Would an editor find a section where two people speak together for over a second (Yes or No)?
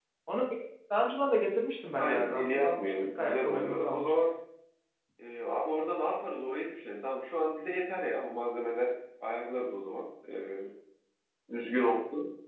Yes